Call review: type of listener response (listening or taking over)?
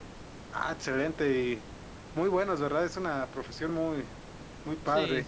taking over